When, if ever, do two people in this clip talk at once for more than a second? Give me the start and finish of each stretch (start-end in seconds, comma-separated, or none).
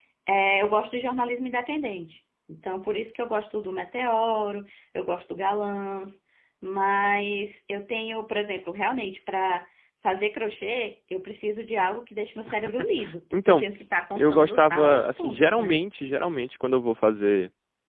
14.2-15.7